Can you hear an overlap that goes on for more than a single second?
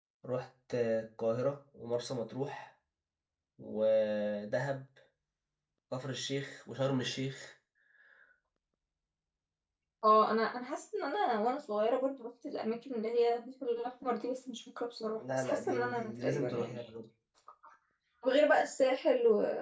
Yes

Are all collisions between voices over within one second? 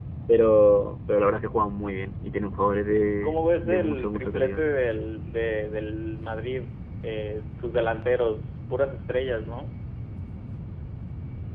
No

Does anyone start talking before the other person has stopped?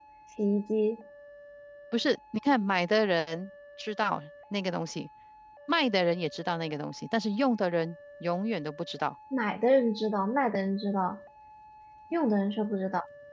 No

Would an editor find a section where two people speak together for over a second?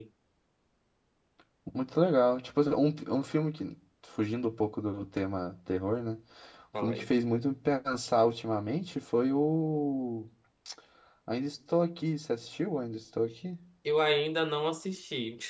No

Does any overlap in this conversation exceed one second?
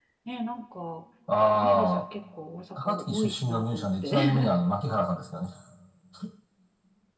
Yes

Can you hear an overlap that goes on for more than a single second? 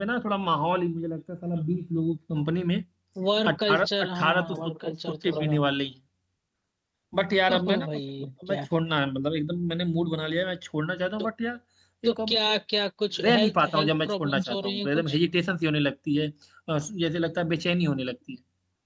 Yes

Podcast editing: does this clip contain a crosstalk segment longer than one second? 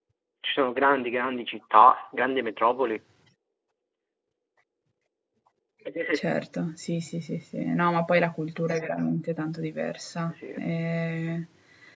No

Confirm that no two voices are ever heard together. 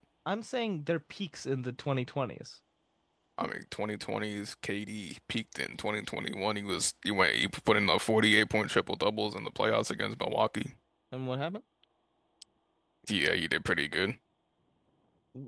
Yes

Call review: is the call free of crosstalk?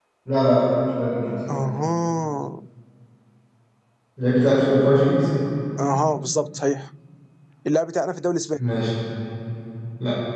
Yes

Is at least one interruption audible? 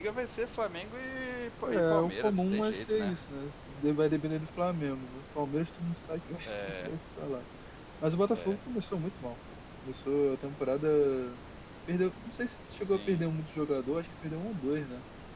Yes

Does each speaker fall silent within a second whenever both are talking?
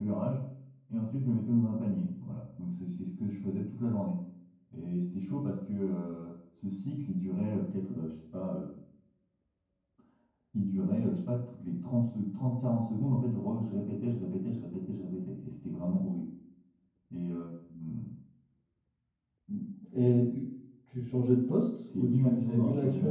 No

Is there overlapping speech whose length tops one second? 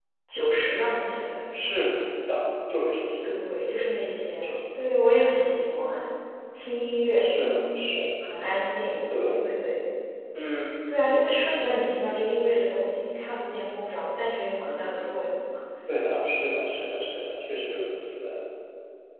No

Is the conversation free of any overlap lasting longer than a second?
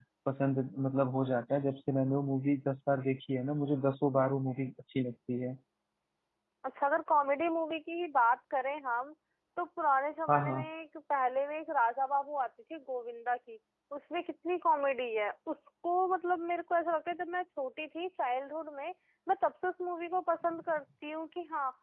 Yes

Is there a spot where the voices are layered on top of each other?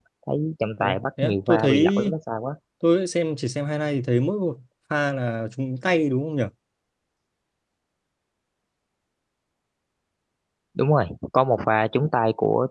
Yes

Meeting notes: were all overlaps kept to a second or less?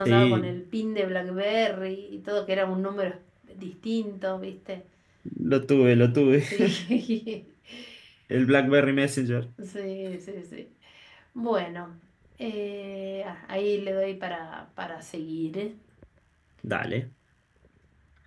Yes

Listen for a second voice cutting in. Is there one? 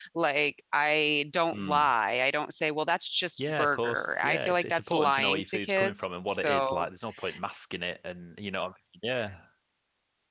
Yes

